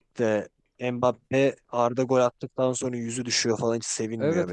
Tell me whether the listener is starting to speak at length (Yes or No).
Yes